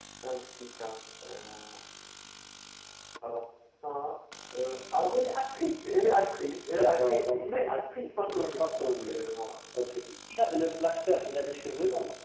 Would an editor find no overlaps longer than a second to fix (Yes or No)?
No